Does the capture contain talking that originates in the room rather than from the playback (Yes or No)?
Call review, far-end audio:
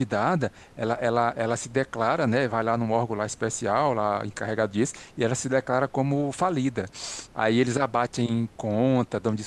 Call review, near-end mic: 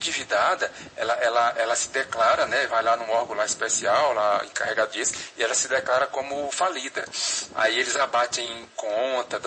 No